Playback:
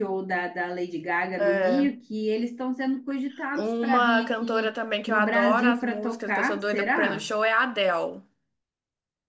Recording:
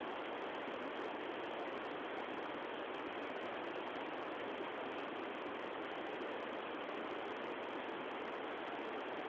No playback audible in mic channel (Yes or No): Yes